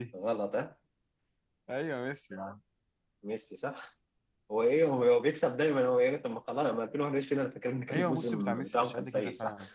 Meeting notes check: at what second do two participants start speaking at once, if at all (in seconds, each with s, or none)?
7.9 s